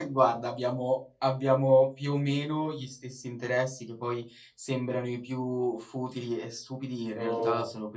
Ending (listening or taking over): listening